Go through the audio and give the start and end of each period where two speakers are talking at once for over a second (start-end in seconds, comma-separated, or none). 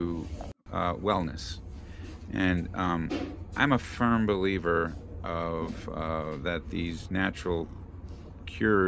none